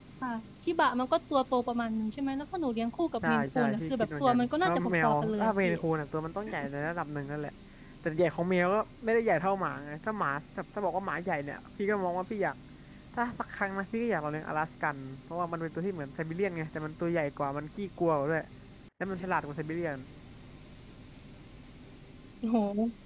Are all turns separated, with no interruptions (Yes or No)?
No